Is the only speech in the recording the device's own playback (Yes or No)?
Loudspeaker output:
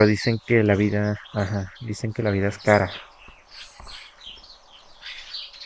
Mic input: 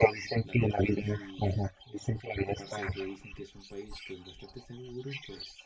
No